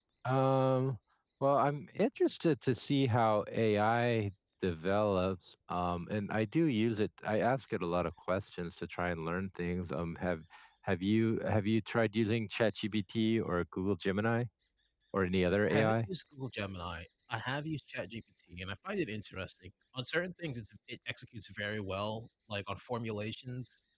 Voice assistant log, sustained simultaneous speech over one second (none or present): none